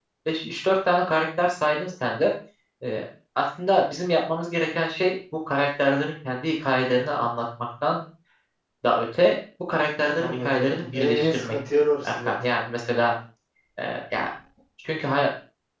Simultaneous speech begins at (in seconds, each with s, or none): 10.2 s